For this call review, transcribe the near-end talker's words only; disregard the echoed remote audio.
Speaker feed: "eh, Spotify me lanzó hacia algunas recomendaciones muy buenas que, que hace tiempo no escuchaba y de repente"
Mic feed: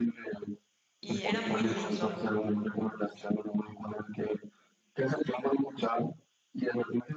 y era muy lindo.

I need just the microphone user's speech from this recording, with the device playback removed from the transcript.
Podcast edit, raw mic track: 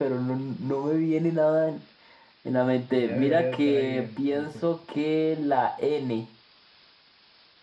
Ya debería de estar ahí en, en tu,

